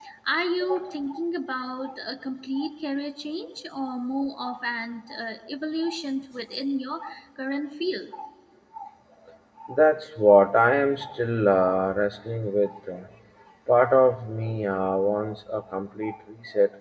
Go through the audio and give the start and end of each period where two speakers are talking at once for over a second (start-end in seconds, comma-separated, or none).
none